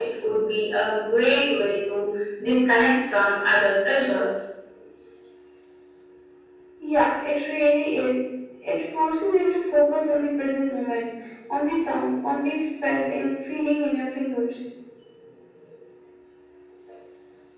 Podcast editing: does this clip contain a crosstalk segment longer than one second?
No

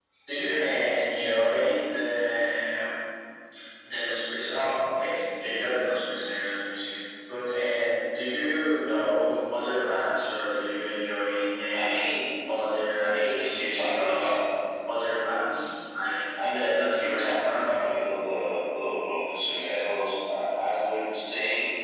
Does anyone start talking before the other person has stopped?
Yes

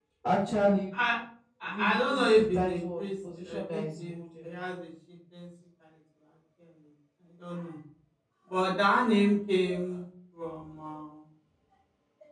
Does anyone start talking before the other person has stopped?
Yes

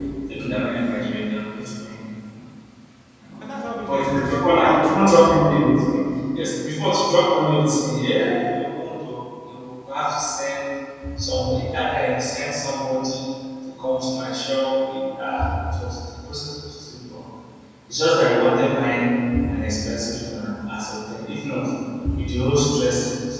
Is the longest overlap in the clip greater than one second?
Yes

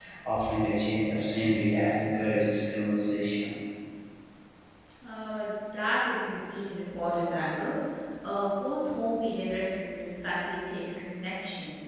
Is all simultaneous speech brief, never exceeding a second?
Yes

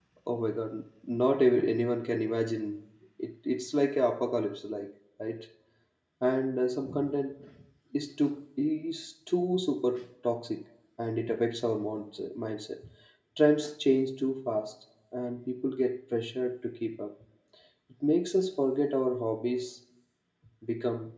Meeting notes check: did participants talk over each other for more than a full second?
No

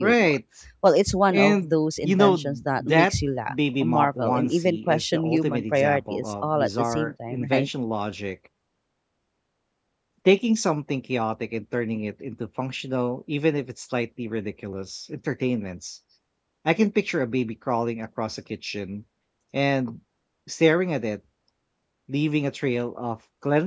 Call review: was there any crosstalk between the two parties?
Yes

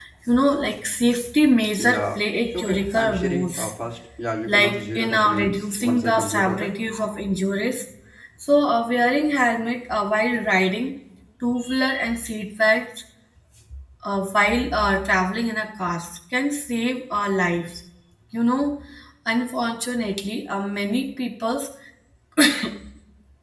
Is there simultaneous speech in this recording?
Yes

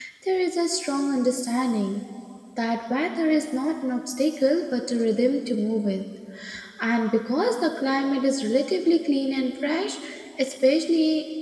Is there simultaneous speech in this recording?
No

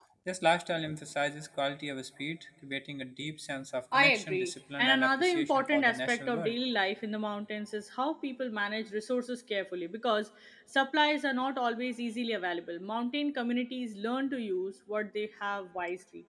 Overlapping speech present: Yes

